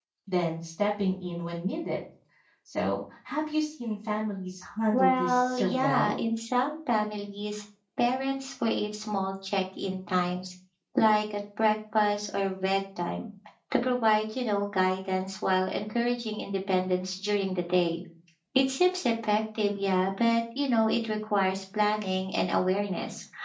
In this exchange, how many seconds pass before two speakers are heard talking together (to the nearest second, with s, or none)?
5 s